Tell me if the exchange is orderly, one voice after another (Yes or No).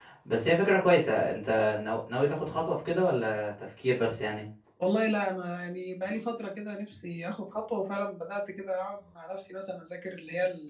Yes